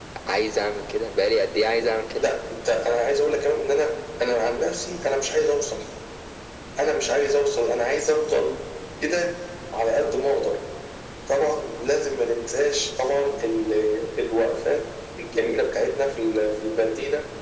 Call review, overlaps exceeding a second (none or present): none